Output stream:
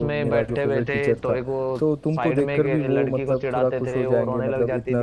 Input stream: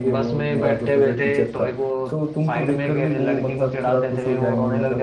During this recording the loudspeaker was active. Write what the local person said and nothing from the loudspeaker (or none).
none